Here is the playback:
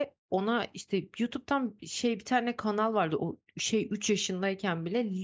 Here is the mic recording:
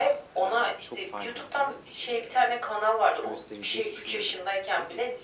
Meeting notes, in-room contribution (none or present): present